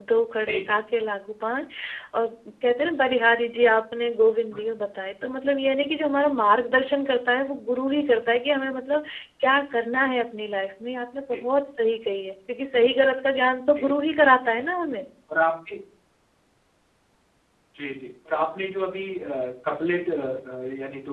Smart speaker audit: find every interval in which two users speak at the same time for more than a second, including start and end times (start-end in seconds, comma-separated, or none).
none